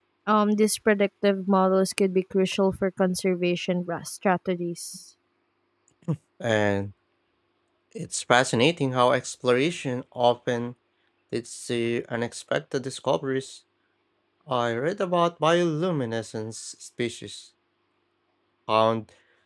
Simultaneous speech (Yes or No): No